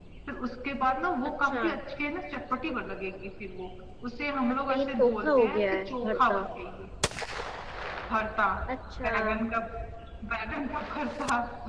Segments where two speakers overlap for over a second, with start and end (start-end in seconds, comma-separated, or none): 4.7-6.4